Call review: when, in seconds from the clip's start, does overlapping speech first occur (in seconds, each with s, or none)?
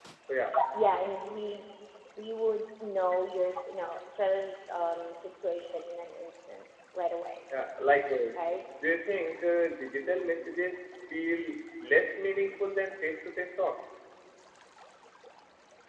none